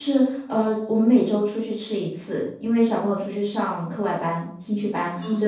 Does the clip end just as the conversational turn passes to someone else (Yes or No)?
No